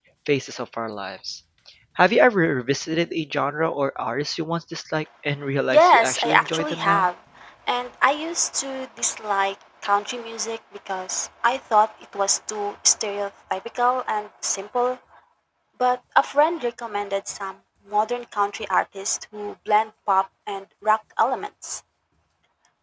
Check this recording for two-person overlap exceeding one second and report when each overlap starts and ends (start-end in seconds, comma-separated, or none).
5.7-7.1